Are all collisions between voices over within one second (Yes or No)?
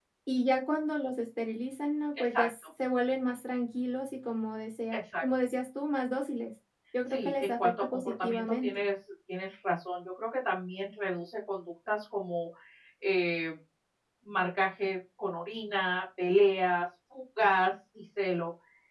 No